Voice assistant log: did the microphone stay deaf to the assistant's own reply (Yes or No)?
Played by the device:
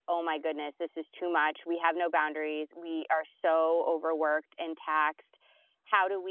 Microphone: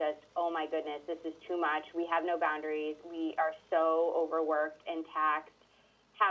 No